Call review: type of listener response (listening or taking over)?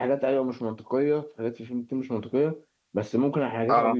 listening